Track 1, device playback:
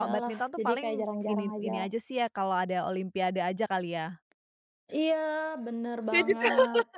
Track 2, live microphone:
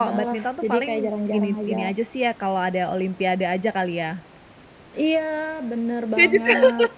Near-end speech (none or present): none